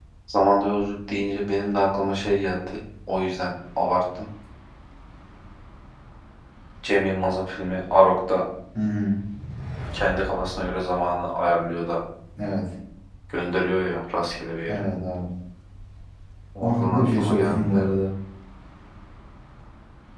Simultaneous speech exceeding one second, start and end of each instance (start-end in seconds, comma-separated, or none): 16.6-17.8